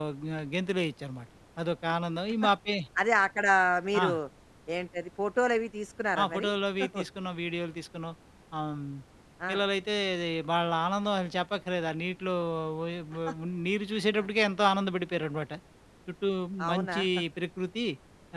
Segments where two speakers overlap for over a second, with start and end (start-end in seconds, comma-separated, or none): none